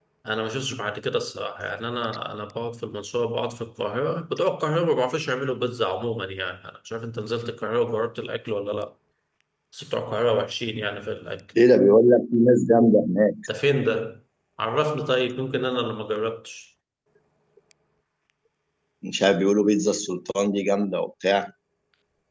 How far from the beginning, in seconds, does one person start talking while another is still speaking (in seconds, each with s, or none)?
none